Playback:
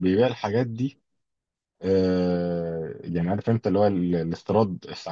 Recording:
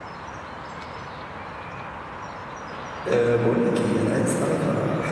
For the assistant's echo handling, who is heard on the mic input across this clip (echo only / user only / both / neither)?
user only